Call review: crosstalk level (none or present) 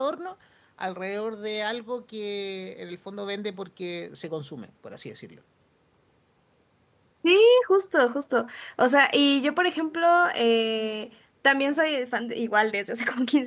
none